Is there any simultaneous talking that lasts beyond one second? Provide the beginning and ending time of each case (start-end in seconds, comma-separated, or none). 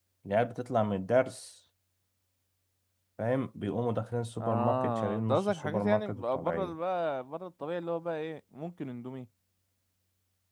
4.4-6.7